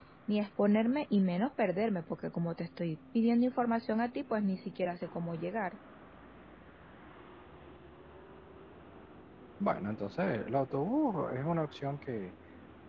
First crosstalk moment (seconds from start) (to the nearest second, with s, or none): none